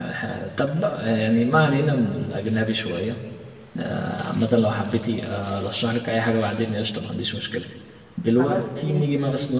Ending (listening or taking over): listening